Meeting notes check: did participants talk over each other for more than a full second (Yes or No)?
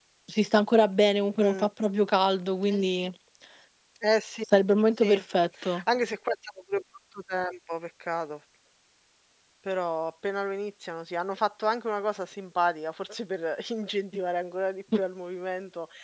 No